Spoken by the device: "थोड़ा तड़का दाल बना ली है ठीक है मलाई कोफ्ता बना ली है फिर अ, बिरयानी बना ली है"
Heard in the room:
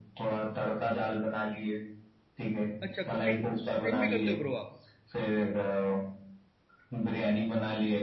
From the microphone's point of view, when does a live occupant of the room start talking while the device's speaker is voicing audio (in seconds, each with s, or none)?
2.8 s